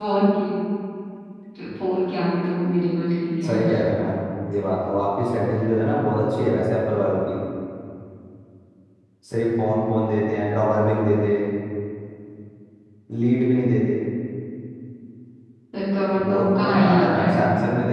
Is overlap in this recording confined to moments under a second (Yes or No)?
No